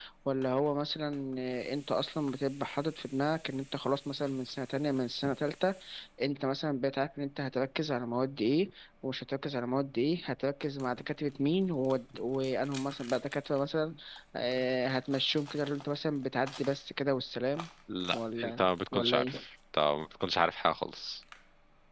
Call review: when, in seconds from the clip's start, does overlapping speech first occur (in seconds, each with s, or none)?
18.1 s